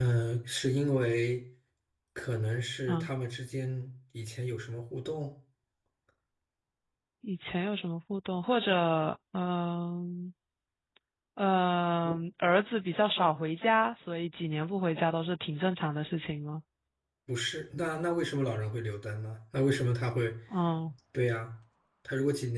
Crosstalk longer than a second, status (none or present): none